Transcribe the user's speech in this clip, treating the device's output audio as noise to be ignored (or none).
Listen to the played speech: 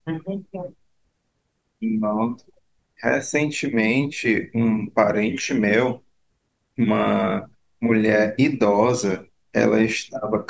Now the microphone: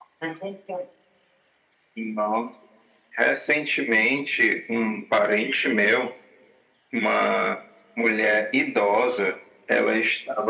none